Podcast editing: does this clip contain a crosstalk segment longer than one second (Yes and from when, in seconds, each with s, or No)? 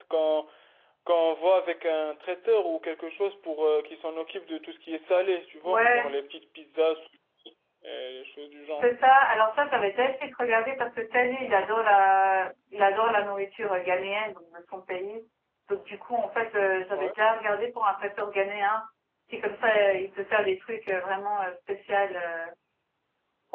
No